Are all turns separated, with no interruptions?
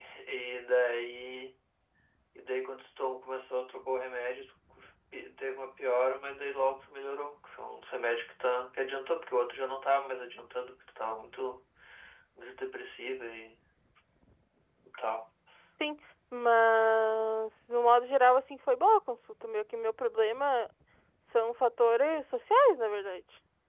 Yes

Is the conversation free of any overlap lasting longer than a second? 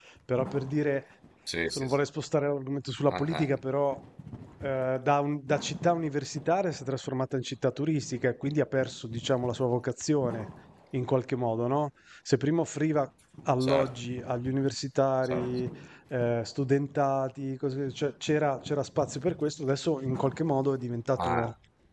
Yes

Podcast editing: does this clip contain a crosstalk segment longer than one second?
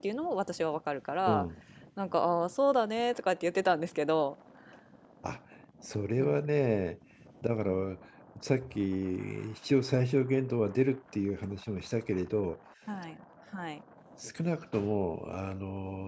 No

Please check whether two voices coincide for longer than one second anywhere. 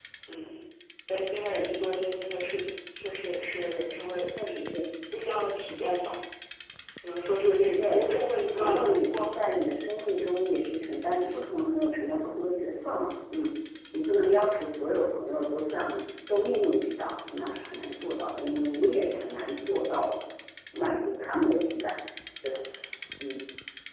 Yes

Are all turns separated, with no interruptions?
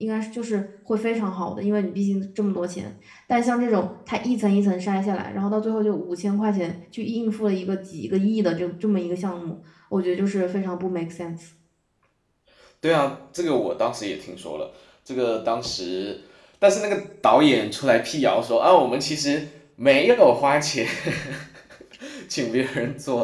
Yes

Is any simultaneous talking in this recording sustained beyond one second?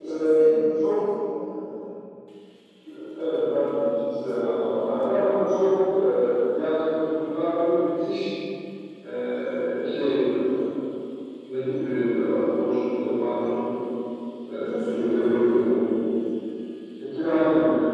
Yes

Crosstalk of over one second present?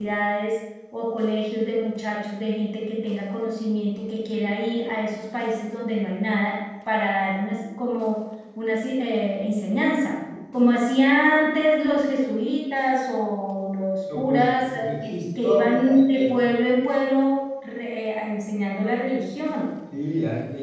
Yes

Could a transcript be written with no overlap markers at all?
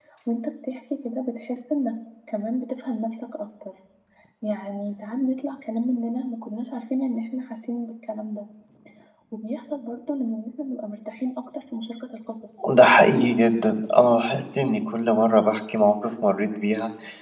Yes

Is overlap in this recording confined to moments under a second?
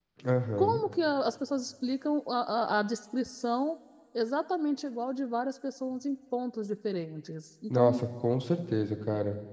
Yes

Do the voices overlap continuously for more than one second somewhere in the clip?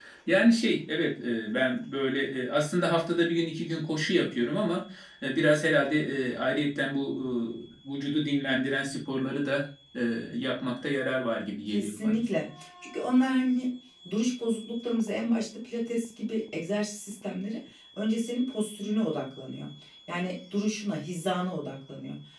No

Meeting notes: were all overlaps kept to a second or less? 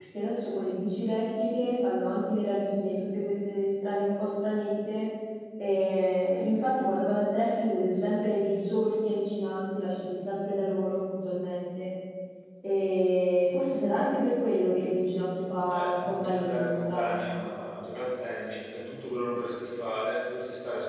No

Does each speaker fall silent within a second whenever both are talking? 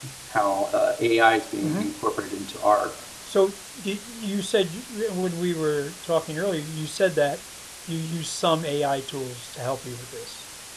Yes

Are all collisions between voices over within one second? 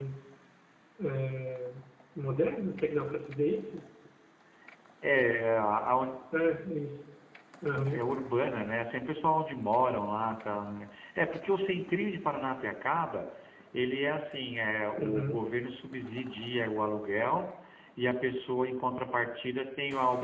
Yes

